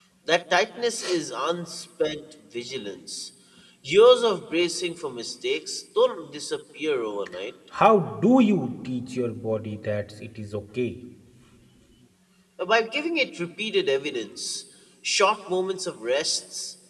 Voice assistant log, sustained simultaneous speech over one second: none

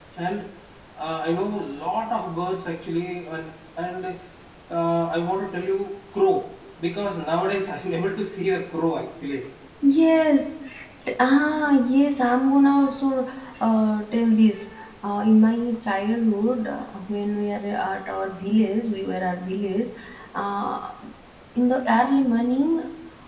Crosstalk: none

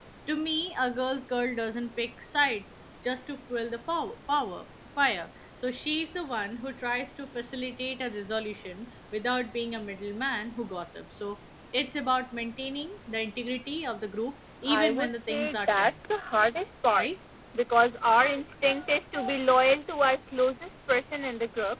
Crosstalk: present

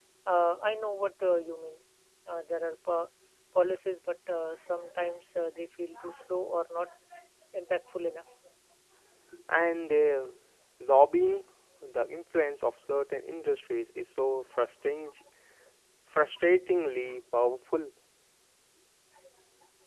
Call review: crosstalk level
none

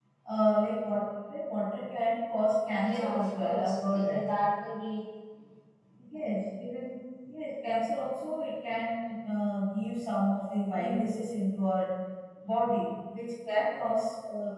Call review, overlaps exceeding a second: present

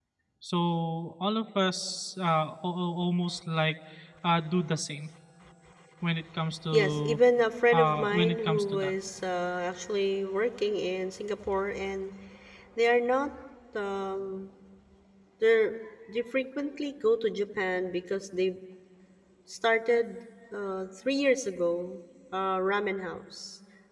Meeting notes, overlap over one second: present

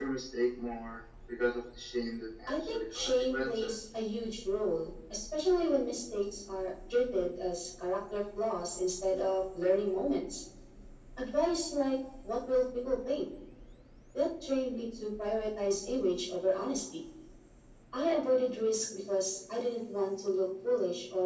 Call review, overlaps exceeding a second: present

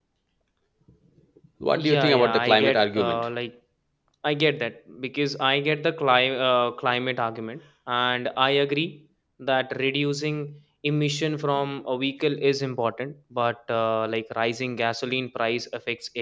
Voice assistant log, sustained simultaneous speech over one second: present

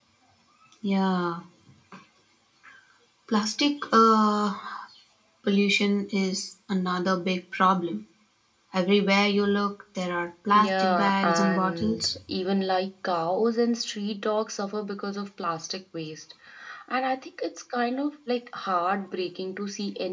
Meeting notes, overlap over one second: present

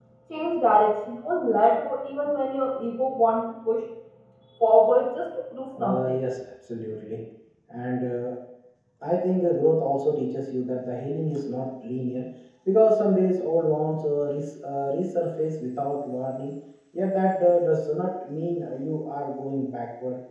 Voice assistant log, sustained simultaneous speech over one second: none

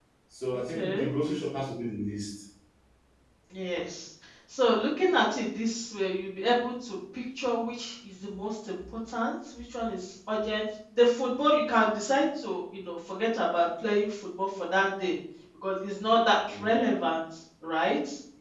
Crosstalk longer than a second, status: none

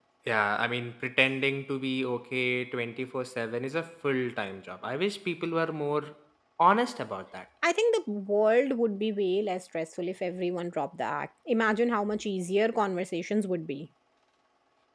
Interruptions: none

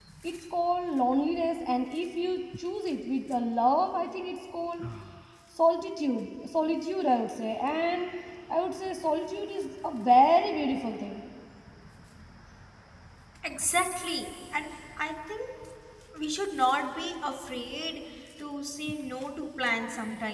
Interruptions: none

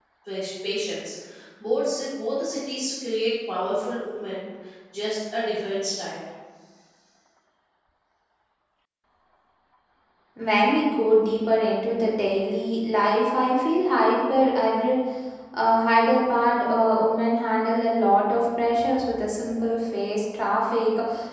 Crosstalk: none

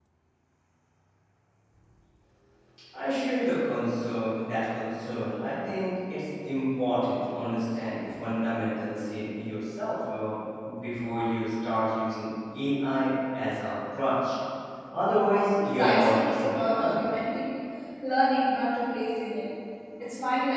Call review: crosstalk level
present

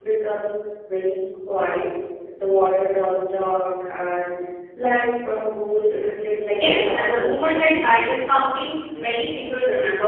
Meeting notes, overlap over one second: present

